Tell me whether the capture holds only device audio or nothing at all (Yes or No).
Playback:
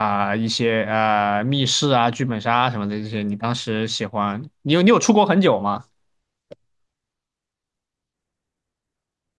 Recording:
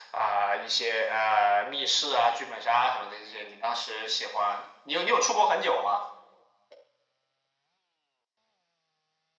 Yes